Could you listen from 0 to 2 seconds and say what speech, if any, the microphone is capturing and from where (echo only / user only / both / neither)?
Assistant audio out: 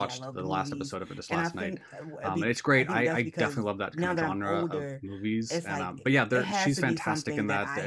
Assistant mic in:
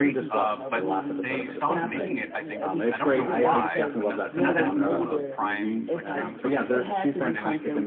both